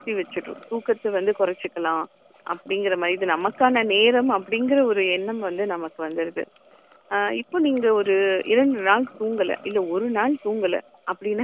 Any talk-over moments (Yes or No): No